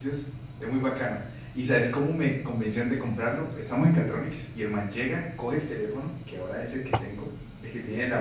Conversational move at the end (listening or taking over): listening